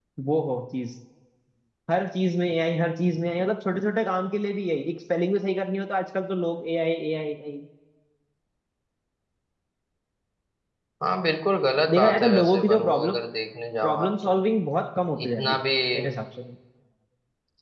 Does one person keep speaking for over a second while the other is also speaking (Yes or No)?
Yes